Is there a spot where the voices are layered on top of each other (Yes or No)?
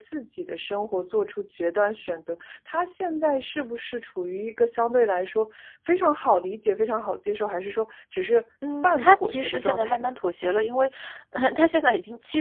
Yes